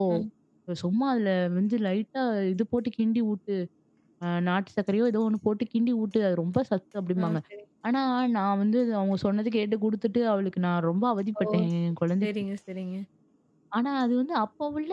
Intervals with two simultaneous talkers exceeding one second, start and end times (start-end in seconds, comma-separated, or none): none